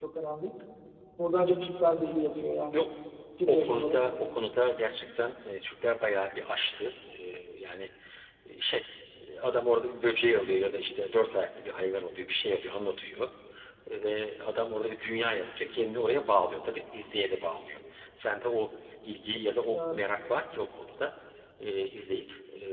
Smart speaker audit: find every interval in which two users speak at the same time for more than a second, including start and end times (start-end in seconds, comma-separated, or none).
none